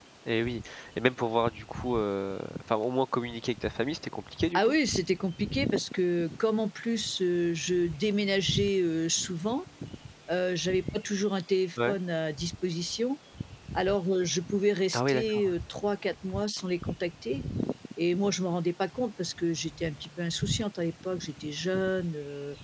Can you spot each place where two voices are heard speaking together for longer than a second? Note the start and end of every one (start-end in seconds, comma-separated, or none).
none